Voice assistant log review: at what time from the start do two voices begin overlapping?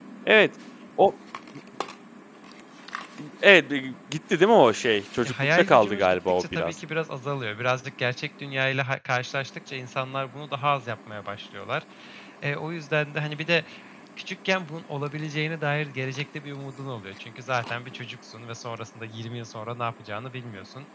5 s

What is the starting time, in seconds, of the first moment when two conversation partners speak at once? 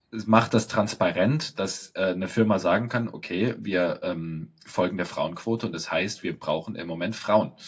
none

